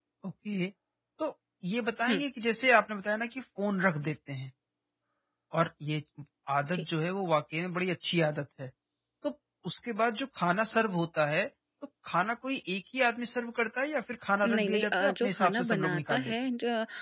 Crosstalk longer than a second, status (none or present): present